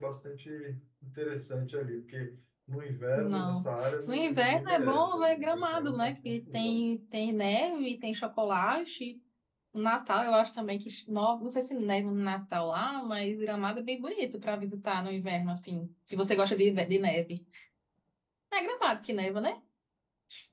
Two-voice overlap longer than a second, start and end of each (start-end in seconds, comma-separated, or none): 4.1-6.8